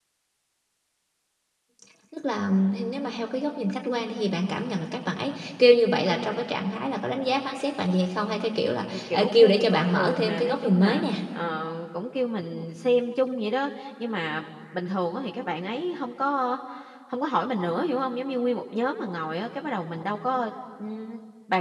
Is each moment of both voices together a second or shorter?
No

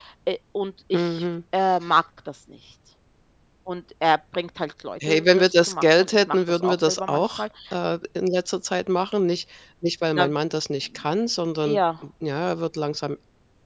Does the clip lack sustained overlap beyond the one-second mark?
No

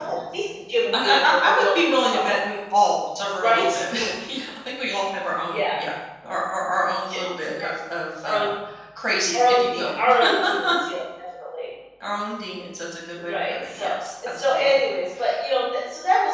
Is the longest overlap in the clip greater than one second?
Yes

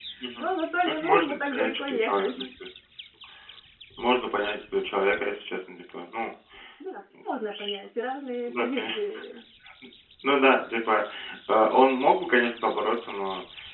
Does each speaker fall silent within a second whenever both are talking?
No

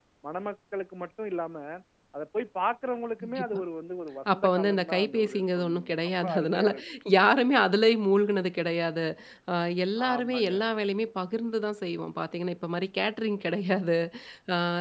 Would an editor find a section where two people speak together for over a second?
Yes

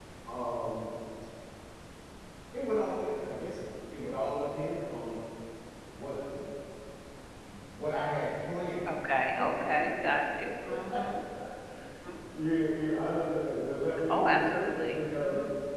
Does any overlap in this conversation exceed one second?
Yes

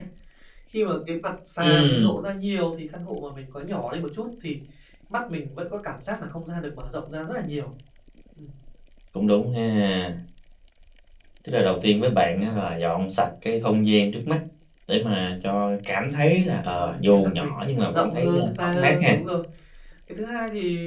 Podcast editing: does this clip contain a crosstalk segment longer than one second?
Yes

